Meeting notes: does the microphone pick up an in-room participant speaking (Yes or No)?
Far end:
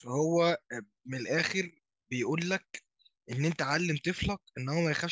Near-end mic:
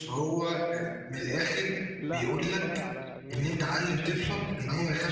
Yes